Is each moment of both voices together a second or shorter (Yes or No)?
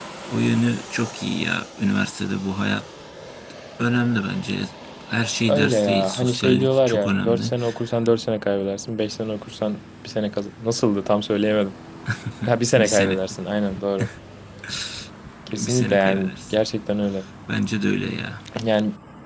No